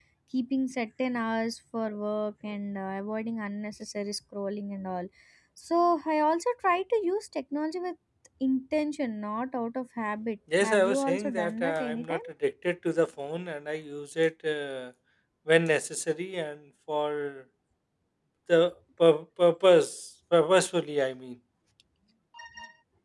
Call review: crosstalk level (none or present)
present